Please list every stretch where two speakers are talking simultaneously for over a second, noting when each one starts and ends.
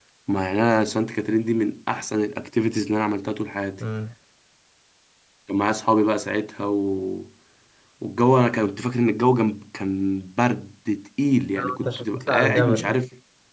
11.6-13.0

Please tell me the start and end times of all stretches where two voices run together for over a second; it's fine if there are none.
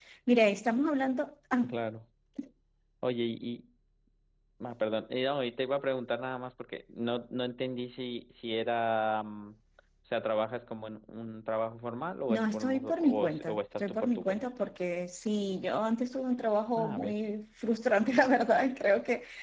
12.3-14.5

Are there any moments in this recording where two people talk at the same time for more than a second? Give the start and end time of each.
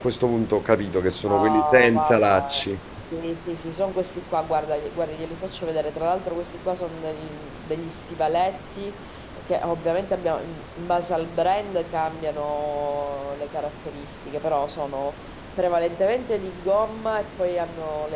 1.3-2.6

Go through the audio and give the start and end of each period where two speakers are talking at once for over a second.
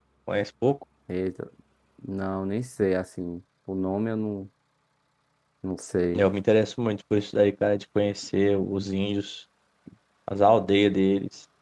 none

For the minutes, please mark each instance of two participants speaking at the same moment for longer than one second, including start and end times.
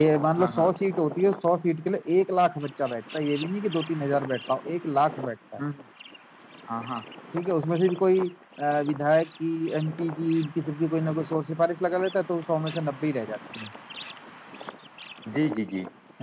none

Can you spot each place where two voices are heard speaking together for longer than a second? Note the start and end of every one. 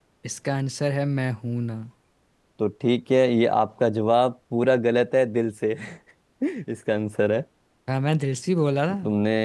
none

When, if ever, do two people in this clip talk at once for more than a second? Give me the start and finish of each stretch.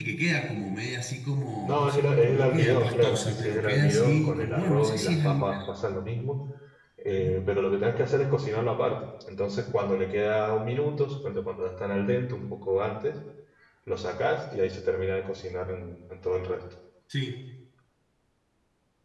1.7-5.4

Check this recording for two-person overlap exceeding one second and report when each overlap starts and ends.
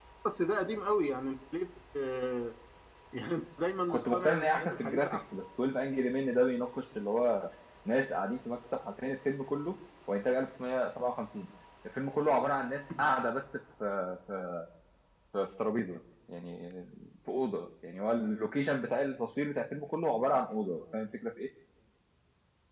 3.9-5.2

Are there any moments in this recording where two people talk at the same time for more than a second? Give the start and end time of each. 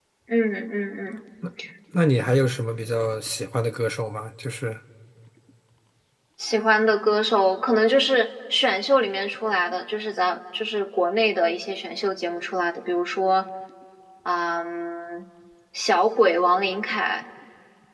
none

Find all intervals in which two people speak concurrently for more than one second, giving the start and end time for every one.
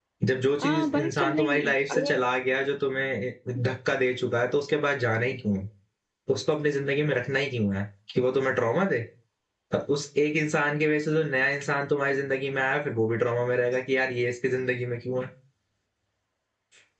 0.6-2.2

